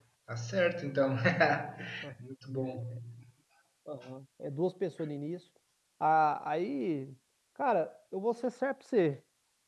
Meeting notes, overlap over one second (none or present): none